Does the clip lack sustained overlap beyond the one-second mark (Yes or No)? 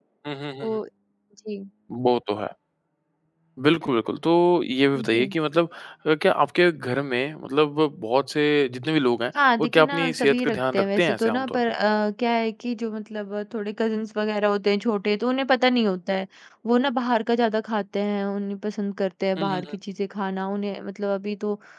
No